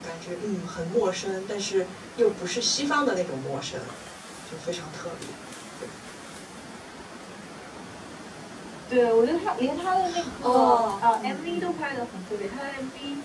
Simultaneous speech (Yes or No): Yes